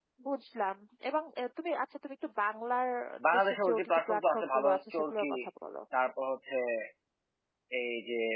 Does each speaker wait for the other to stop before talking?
No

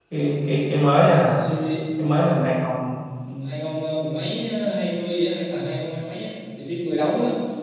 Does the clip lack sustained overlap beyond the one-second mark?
Yes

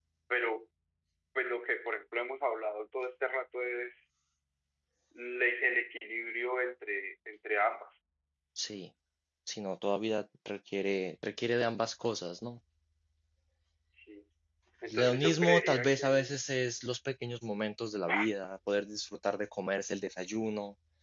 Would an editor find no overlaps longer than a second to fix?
No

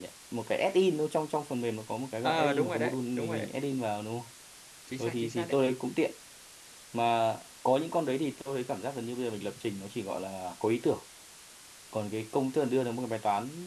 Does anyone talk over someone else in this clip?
Yes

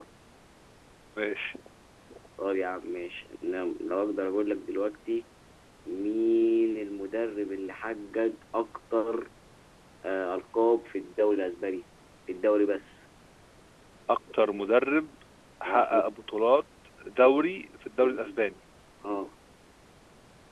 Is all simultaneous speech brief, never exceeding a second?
Yes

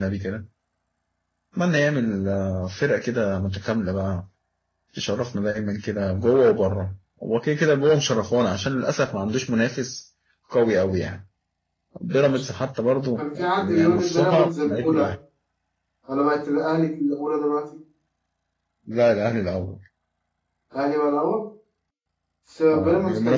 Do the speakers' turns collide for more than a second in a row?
Yes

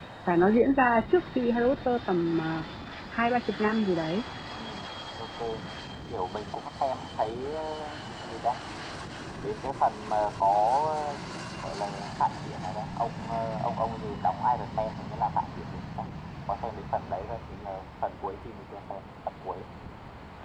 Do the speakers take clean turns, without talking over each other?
Yes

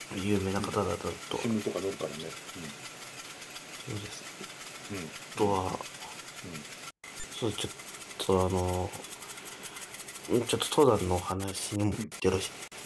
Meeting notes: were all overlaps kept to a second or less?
Yes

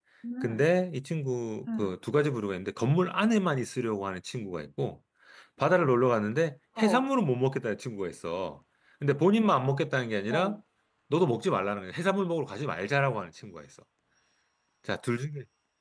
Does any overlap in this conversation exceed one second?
No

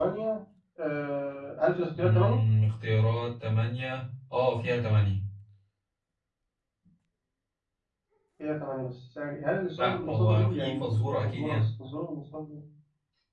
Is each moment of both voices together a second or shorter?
No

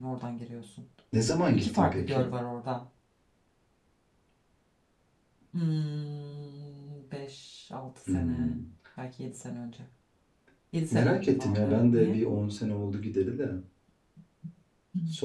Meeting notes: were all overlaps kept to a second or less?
No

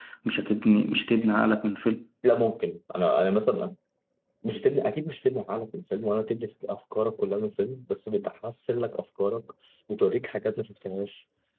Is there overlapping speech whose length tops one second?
No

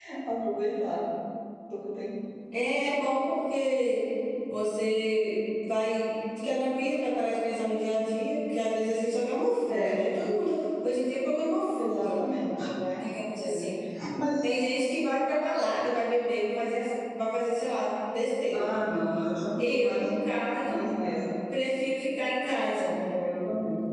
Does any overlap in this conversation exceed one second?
No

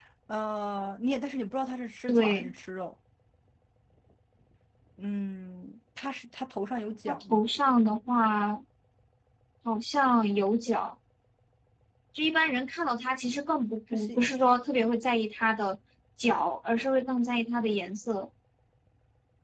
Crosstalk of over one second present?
No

